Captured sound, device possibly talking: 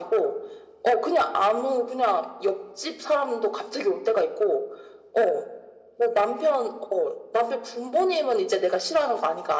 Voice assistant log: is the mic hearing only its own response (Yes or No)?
Yes